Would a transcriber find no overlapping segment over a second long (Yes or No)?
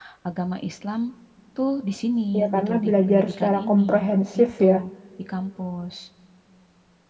No